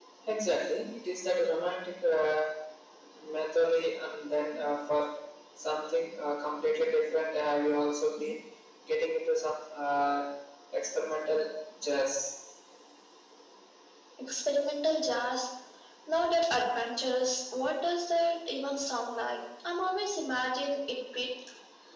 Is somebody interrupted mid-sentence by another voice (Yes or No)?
No